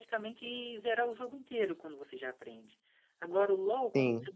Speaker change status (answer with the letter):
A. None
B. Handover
A